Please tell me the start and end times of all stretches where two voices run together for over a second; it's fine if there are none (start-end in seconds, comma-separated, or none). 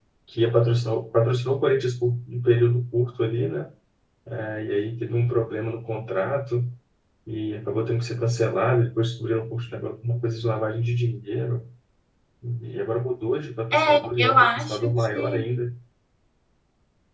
13.7-15.6